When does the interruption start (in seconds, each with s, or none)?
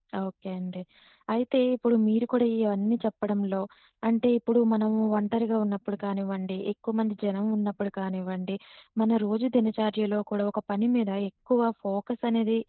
none